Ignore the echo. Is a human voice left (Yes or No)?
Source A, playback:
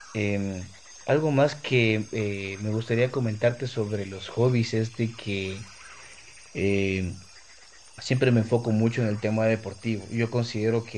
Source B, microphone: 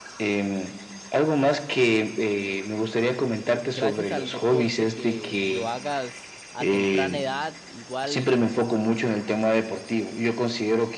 Yes